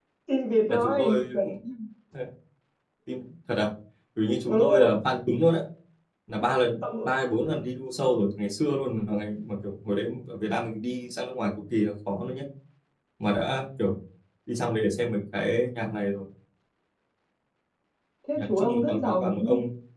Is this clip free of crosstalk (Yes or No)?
No